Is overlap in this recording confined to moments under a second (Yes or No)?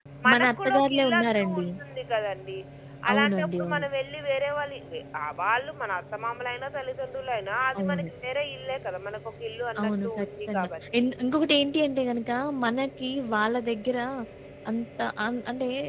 No